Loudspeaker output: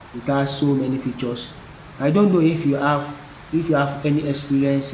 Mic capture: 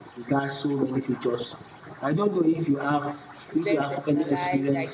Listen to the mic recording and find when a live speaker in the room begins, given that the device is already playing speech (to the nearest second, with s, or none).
3 s